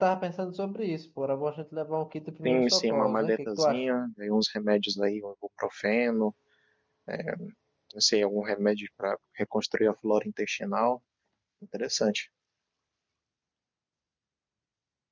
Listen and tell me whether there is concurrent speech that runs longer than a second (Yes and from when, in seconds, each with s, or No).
Yes, from 2.4 s